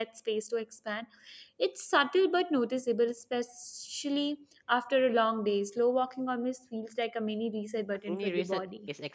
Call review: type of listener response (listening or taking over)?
taking over